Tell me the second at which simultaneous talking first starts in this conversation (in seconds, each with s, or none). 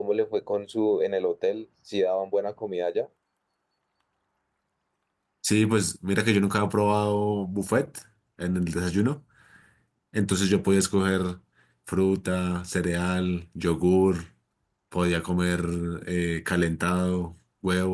none